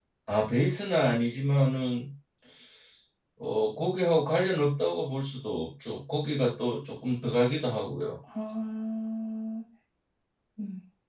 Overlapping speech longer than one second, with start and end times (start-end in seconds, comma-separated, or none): none